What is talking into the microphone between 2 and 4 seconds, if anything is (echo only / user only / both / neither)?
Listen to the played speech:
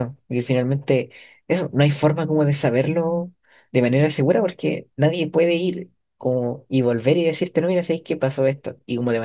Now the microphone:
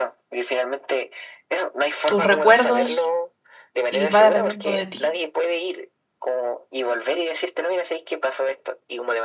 both